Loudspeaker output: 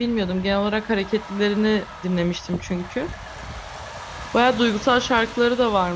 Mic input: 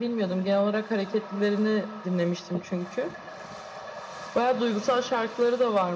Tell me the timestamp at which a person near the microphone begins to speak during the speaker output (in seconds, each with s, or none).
none